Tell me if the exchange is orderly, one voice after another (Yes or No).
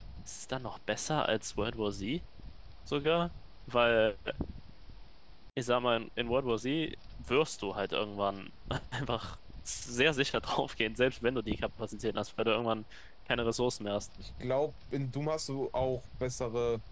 Yes